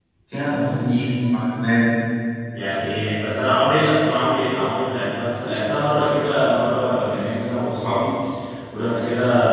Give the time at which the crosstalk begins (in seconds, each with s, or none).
none